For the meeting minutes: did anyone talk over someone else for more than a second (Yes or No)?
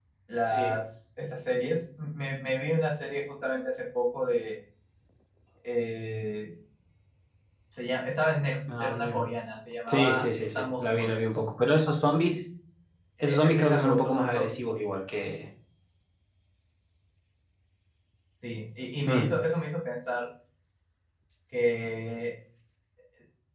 Yes